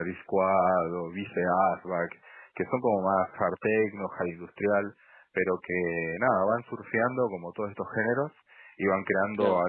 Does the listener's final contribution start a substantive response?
No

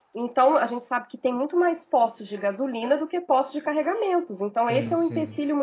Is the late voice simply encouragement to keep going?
Yes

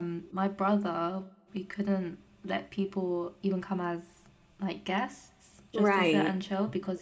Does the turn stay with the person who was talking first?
Yes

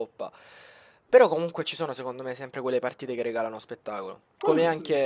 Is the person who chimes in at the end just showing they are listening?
Yes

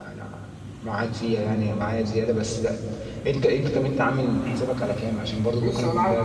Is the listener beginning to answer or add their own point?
Yes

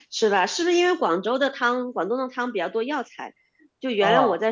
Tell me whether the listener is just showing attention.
Yes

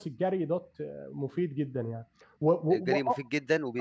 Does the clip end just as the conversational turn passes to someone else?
Yes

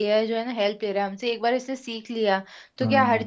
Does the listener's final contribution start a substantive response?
No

